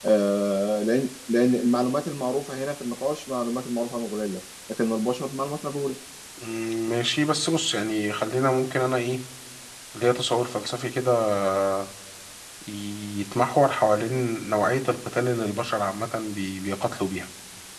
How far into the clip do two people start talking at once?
none

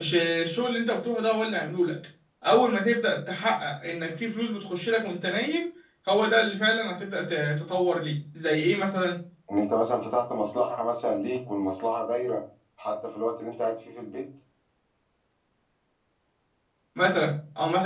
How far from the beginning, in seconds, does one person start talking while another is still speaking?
none

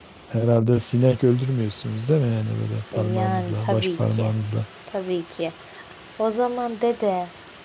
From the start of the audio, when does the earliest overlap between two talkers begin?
3 s

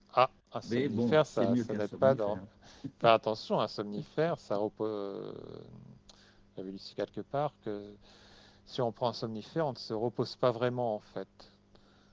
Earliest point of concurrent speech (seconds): 1 s

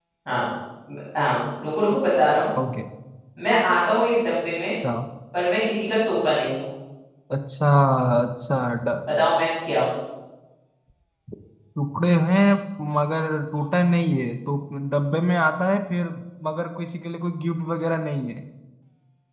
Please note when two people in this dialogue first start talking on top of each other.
none

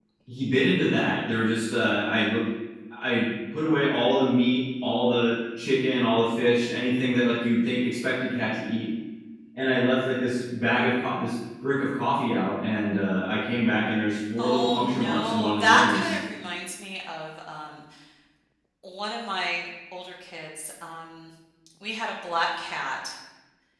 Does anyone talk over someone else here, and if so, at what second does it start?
14 s

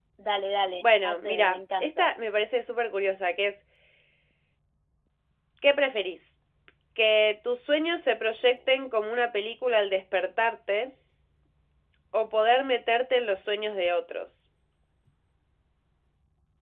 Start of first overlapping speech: 1 s

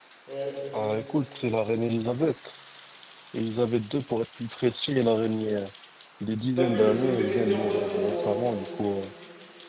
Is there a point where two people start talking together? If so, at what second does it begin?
7 s

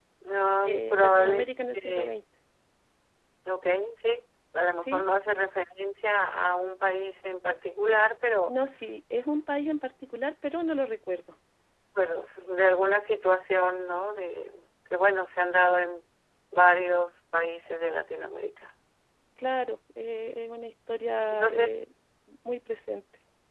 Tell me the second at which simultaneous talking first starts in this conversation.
1 s

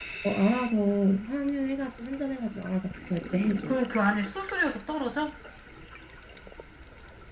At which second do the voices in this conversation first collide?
none

